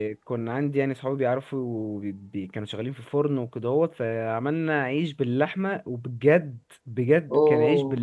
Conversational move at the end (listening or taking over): listening